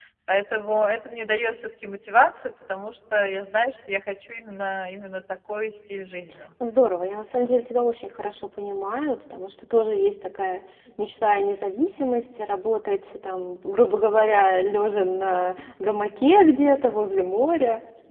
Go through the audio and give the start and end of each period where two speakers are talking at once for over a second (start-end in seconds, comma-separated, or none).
none